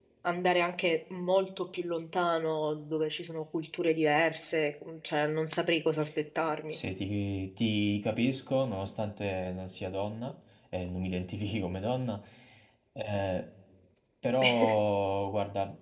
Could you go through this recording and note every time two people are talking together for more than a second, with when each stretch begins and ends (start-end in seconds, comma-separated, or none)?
none